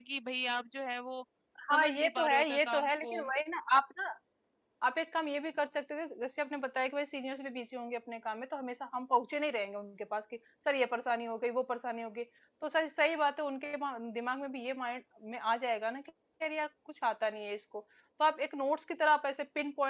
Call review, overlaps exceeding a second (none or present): present